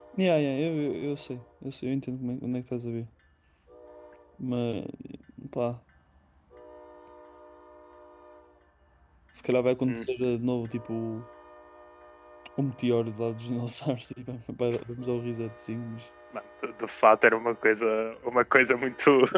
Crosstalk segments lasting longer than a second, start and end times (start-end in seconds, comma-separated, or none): none